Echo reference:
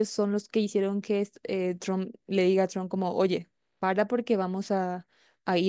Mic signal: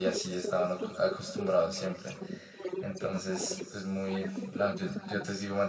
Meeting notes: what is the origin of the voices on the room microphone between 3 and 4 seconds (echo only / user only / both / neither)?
both